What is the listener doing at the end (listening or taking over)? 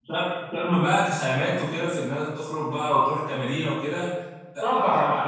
taking over